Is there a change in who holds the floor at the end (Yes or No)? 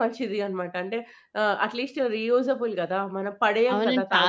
Yes